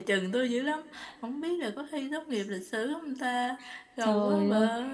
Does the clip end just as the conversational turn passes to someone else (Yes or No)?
Yes